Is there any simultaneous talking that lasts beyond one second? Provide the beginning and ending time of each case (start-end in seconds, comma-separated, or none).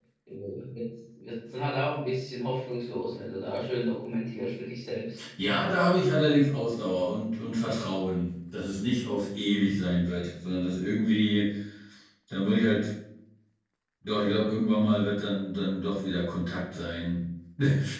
none